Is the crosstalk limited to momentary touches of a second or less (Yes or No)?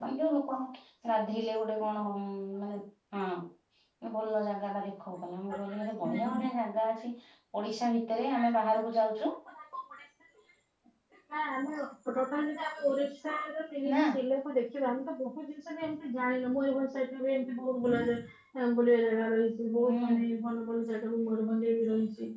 Yes